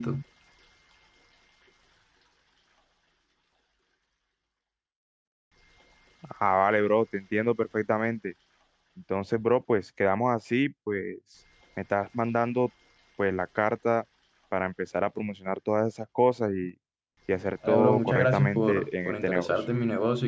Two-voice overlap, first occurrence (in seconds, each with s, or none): 17.7 s